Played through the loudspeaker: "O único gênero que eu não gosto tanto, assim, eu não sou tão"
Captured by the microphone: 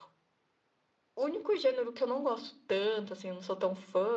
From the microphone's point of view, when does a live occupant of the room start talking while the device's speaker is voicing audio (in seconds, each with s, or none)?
none